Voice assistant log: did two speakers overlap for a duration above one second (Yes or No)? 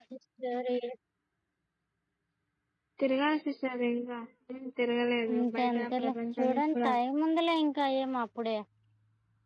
Yes